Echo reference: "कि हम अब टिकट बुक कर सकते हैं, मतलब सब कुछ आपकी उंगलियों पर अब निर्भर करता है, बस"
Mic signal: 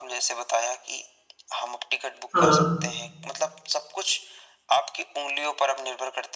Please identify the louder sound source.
user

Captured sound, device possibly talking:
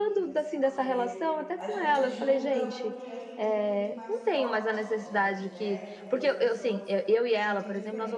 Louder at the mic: echo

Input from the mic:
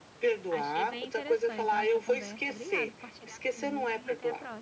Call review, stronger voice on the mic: echo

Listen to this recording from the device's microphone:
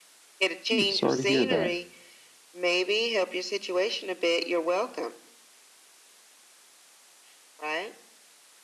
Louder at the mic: user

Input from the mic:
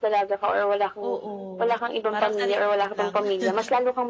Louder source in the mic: echo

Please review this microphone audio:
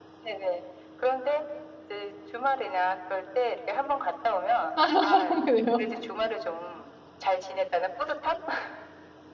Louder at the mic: user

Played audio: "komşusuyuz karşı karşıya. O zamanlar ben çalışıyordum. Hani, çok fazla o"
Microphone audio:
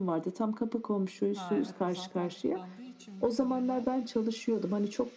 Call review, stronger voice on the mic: echo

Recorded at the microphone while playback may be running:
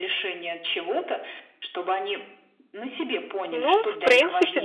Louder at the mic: user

